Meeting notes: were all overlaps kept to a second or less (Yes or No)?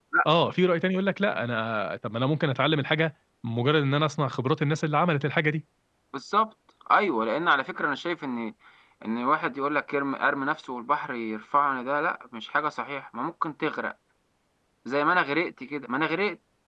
Yes